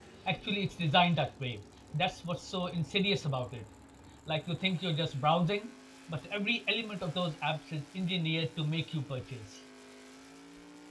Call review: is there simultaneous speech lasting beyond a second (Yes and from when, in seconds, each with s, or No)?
No